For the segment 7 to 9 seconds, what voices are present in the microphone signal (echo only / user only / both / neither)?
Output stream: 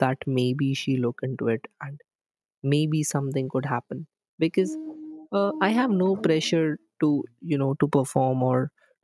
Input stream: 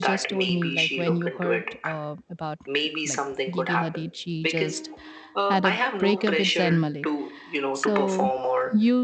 both